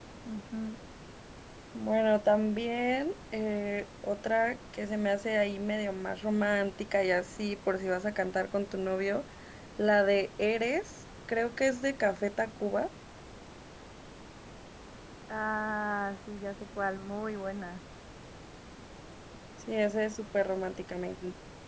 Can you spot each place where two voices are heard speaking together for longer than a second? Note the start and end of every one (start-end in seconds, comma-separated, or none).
none